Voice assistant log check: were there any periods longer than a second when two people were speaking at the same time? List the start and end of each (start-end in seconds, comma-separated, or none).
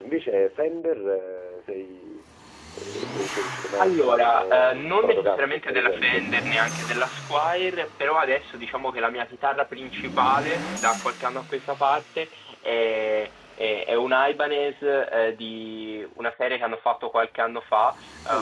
3.8-6.2